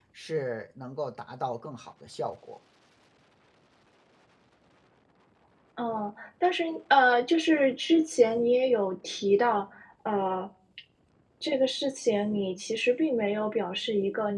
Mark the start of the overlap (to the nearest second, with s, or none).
none